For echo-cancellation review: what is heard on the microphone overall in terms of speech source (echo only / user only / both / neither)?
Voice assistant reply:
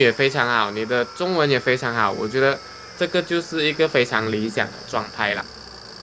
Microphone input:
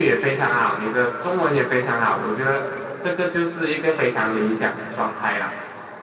echo only